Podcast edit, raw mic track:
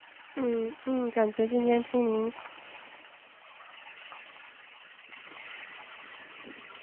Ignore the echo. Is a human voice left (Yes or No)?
Yes